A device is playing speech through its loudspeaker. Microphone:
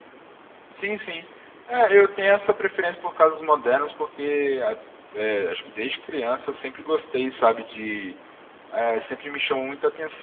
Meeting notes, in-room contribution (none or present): present